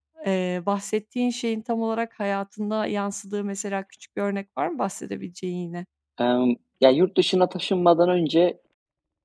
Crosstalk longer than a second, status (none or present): none